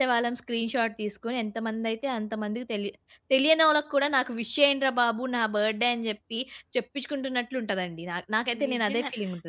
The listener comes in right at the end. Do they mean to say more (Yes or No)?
Yes